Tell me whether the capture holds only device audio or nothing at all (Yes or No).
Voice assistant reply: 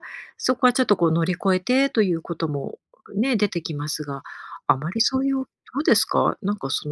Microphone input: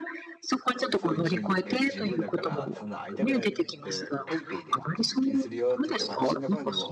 No